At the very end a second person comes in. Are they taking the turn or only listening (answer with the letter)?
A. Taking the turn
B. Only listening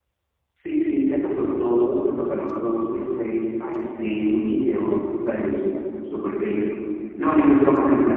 B